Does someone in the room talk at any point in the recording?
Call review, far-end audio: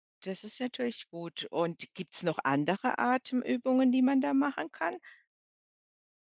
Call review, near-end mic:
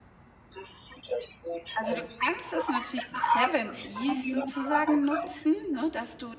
Yes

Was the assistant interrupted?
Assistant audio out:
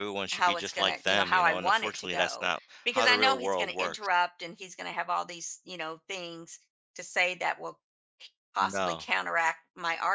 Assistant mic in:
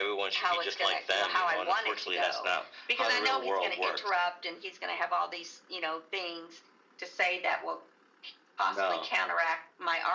No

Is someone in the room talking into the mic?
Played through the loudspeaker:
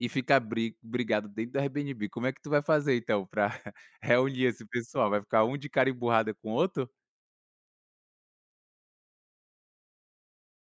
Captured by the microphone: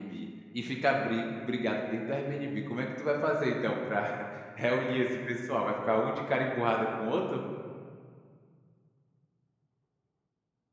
No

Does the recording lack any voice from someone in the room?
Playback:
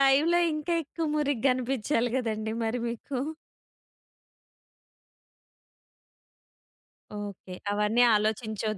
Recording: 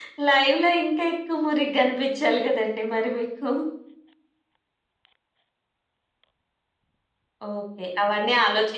Yes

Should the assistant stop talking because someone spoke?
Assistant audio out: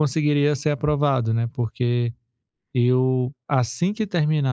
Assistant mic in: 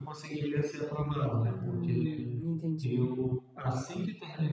Yes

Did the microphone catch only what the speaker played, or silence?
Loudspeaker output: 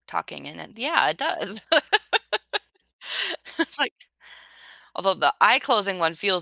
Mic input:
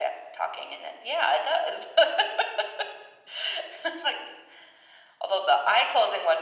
Yes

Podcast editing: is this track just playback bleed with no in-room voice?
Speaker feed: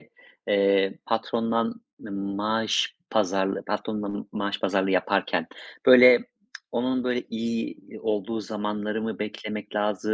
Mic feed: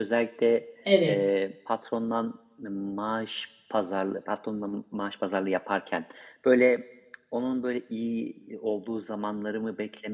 No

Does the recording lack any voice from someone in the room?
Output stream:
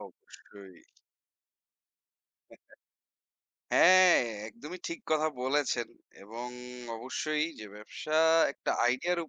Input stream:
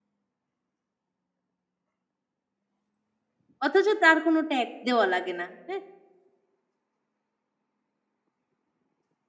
No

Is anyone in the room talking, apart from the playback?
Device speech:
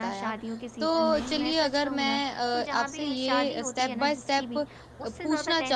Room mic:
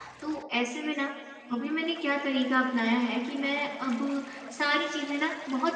Yes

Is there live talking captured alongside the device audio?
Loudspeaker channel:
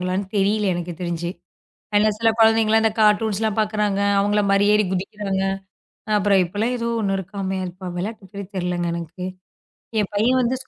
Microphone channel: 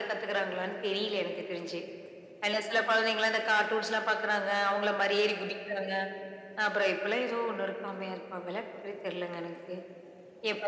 No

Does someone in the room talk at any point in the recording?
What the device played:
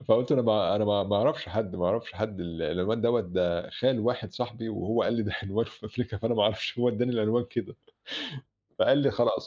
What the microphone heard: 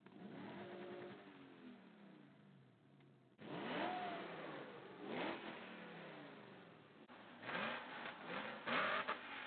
No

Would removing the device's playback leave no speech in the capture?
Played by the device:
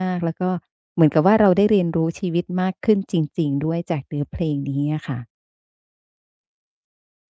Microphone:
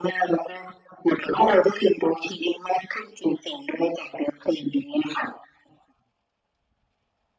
Yes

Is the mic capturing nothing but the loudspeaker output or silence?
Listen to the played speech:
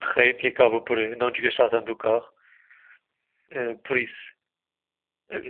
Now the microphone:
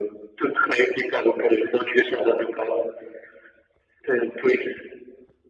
Yes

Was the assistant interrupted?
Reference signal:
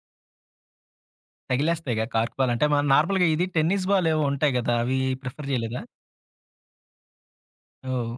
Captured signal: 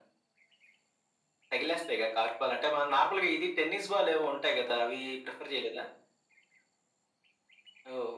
No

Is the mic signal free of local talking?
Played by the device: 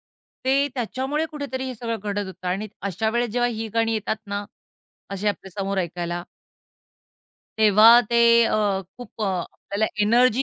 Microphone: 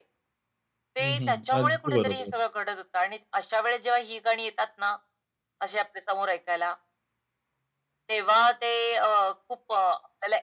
No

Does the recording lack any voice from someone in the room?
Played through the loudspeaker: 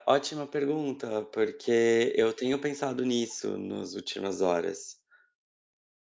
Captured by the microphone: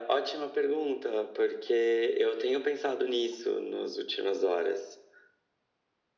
Yes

